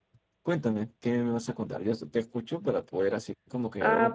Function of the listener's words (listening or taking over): taking over